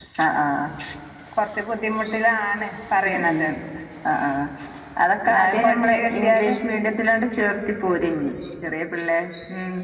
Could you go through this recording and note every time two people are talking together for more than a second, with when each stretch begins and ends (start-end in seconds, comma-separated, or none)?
5.3-6.5